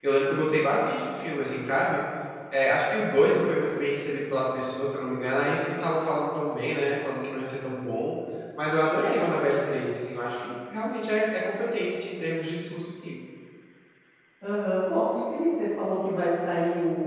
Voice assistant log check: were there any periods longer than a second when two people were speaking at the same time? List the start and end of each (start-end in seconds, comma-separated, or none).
none